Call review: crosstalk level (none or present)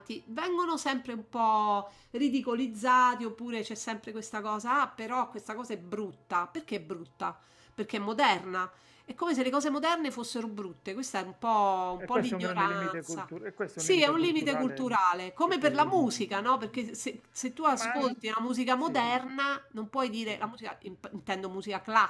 present